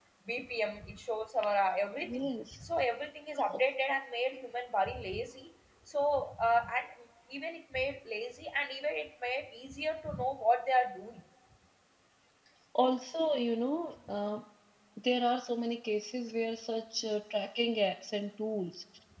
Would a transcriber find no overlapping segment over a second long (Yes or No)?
Yes